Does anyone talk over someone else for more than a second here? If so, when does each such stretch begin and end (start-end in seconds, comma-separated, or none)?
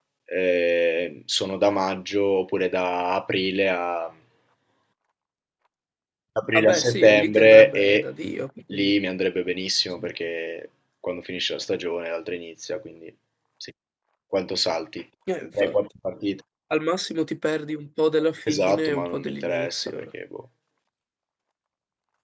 6.5-8.0, 18.5-20.0